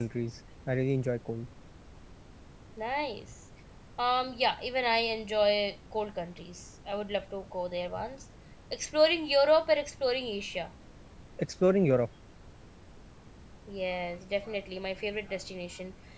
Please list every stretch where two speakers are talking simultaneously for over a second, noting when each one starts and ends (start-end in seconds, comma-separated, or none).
none